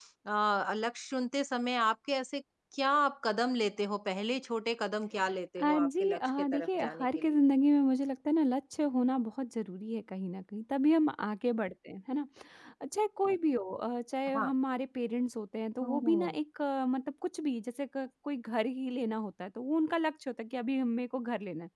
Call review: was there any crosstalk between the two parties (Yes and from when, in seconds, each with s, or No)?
Yes, from 5.6 s